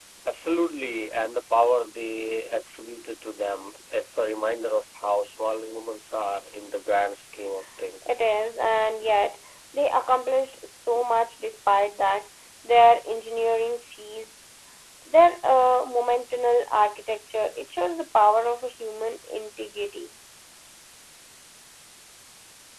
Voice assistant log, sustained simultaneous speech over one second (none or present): none